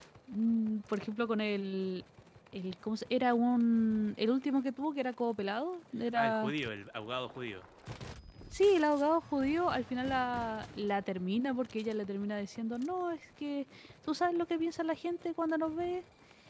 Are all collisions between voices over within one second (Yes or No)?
Yes